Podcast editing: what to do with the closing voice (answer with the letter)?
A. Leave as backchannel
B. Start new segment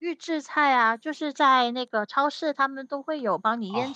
B